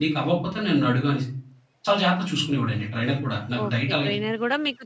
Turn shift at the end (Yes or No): Yes